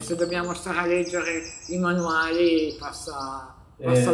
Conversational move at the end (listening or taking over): listening